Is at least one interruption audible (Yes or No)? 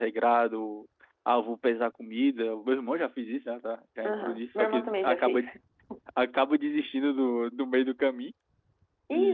Yes